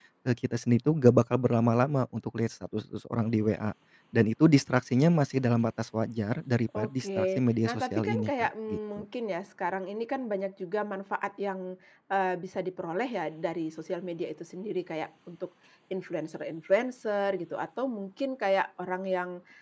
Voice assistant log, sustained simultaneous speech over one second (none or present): present